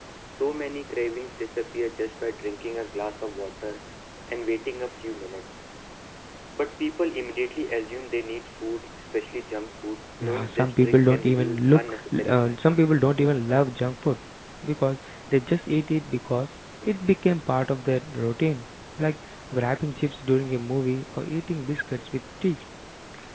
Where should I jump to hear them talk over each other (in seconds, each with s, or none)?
10.2 s